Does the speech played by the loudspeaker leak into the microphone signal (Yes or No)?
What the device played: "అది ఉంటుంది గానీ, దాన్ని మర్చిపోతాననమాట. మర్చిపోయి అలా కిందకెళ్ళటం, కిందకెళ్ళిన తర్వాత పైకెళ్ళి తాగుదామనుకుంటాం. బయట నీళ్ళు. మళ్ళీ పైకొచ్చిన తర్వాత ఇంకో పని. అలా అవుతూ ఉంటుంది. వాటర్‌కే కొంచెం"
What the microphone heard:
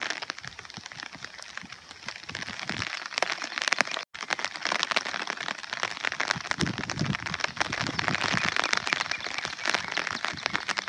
No